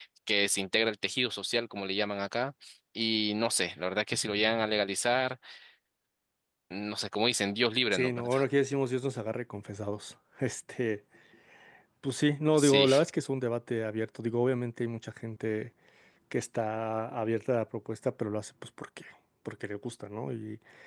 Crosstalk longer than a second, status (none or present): none